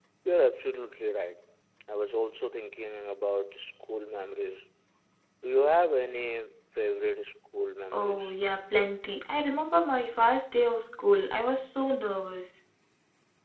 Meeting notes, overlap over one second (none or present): none